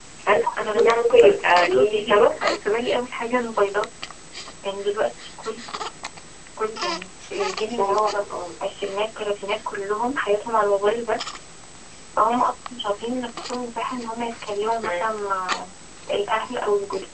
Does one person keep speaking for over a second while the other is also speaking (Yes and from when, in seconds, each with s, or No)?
Yes, from 0.6 s